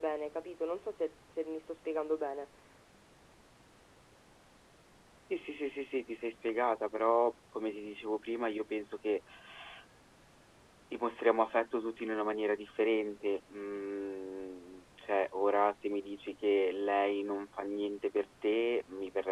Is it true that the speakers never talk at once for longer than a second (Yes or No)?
Yes